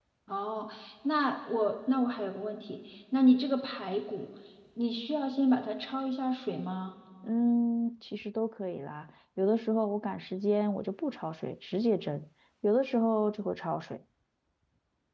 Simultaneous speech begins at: none

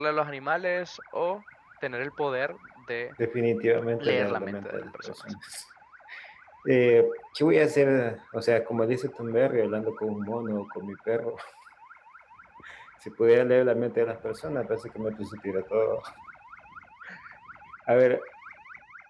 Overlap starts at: 4 s

